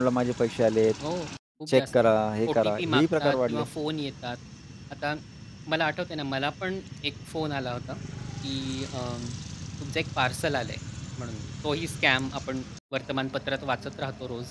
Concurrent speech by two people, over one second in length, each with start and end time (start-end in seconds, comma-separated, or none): 2.5-3.7